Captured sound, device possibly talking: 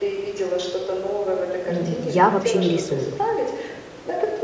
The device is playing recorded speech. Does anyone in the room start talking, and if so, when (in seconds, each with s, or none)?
1.7 s